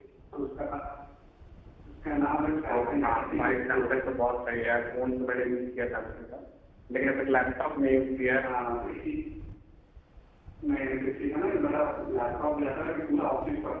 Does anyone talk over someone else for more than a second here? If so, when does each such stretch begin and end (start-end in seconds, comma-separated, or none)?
2.7-3.9